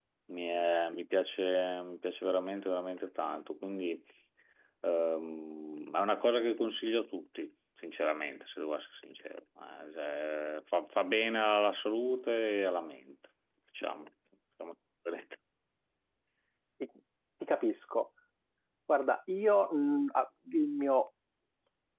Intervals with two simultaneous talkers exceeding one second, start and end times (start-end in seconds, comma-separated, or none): none